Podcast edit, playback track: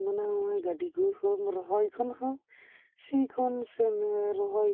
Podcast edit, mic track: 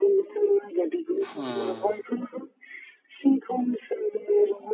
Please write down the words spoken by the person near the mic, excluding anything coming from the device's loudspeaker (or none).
ᱦᱮᱸ